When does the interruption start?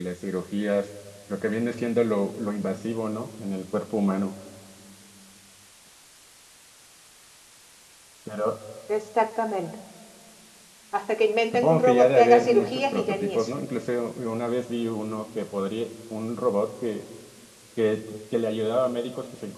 11.5 s

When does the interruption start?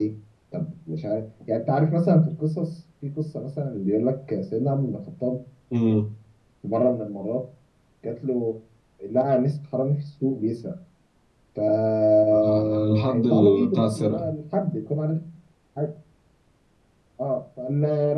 12.3 s

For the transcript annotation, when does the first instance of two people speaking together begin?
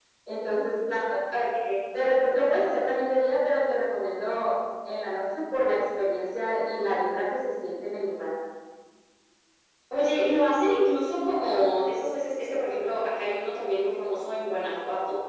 none

